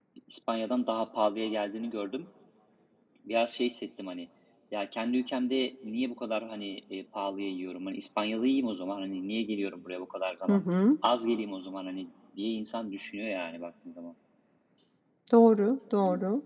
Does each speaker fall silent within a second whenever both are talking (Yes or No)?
Yes